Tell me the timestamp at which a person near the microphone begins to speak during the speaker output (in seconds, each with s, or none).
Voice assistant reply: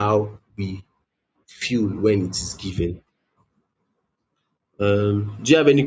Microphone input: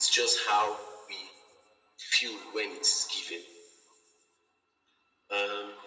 none